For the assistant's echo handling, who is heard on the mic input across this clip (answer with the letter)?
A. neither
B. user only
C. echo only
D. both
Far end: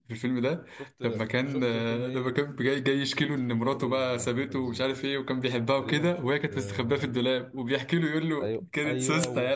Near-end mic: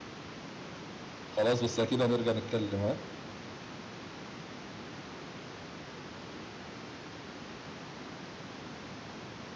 B